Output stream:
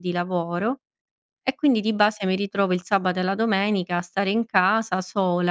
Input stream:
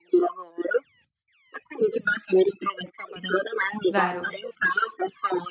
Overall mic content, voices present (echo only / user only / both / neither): both